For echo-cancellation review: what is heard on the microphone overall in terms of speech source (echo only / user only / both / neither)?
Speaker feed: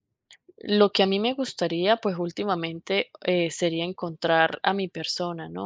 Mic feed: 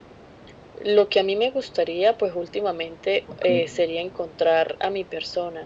both